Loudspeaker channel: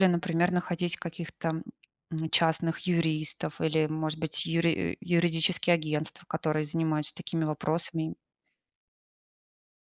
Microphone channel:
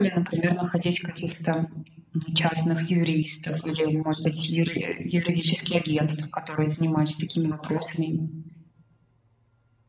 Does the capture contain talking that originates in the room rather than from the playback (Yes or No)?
No